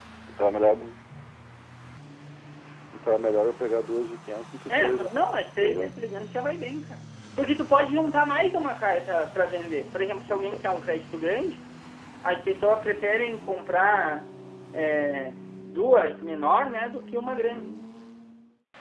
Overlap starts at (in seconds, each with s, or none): 4.7 s